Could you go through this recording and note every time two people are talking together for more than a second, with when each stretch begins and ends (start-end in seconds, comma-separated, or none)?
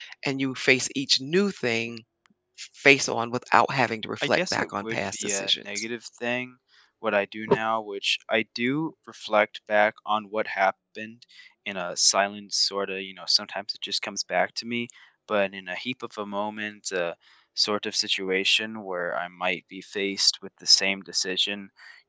4.2-5.8